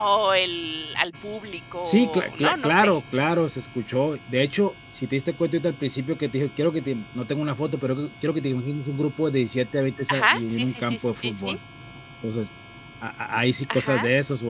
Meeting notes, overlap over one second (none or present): present